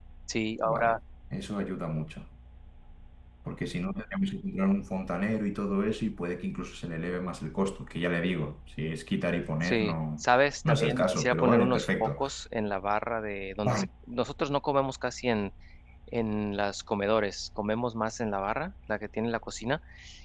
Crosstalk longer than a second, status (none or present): present